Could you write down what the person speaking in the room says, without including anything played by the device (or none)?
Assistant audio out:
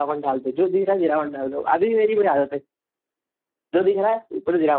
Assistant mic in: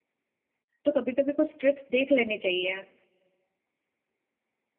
तो कभी कभी कुछ ट्रिक्स देख लेनी चाहिए